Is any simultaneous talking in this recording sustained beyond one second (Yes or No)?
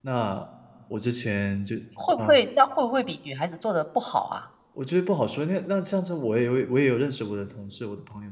No